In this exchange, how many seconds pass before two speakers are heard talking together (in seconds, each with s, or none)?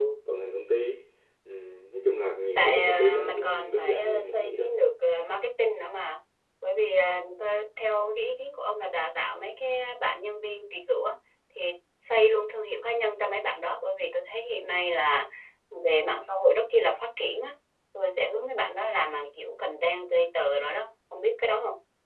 2.6 s